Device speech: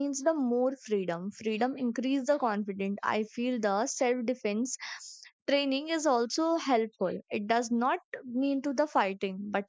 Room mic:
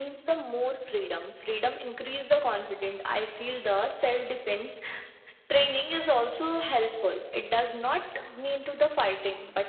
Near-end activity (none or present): none